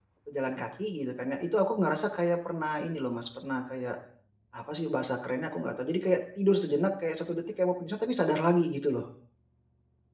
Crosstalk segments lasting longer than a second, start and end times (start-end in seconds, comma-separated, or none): none